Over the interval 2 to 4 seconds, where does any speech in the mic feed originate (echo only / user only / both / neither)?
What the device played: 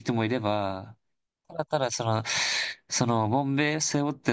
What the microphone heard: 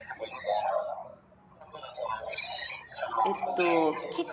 both